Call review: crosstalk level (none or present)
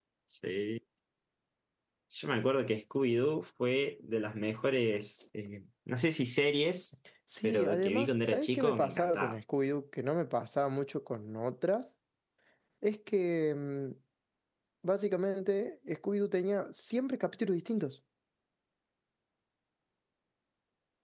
present